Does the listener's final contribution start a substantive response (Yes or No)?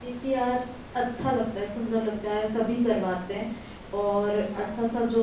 No